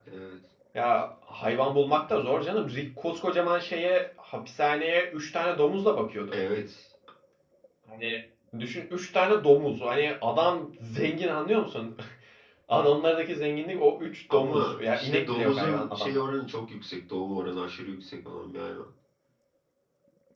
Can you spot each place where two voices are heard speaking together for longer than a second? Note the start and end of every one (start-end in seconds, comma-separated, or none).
14.3-16.2